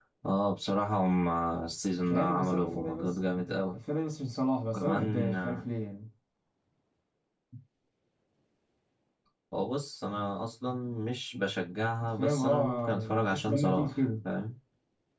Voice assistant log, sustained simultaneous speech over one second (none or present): present